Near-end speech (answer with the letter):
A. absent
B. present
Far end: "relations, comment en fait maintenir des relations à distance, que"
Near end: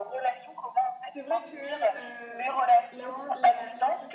B